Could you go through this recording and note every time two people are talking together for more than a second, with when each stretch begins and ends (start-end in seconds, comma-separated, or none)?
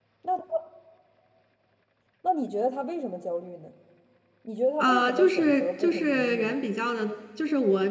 4.8-6.6